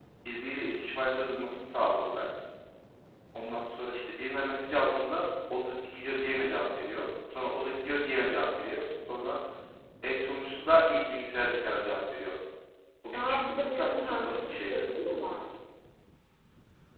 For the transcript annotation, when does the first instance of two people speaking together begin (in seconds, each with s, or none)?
13.1 s